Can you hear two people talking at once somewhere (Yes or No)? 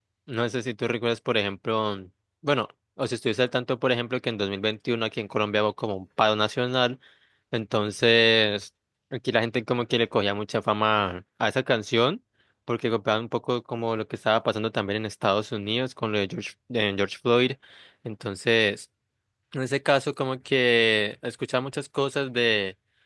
No